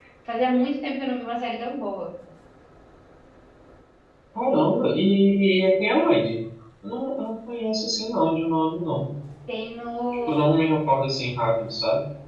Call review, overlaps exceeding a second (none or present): none